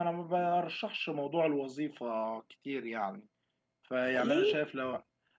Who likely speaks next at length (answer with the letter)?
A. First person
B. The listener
A